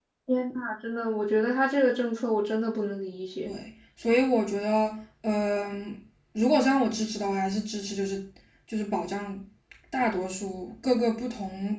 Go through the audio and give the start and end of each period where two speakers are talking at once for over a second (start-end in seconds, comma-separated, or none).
none